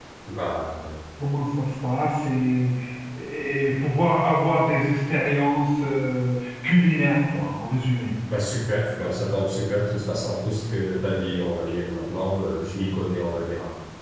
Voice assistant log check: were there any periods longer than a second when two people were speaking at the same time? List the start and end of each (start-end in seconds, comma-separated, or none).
none